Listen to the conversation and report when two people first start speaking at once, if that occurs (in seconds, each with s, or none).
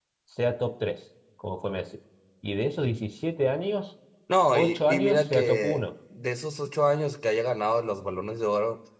4.5 s